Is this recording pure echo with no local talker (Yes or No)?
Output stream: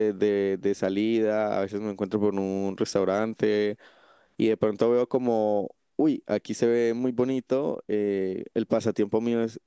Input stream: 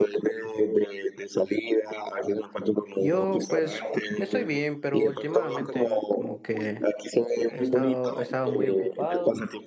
No